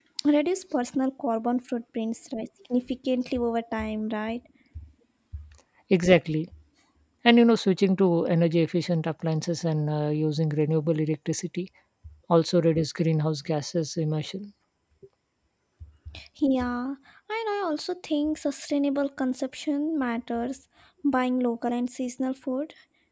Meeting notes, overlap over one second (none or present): none